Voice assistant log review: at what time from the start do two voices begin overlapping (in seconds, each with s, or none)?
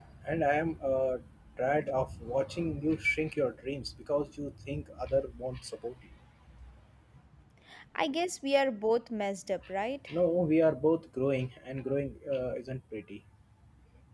none